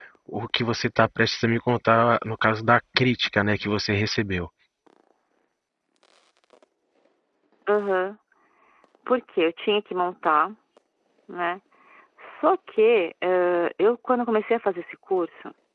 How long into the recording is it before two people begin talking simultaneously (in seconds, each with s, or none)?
none